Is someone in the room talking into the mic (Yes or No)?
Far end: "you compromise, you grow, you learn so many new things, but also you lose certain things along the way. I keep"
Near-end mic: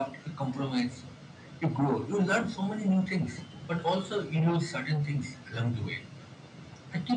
No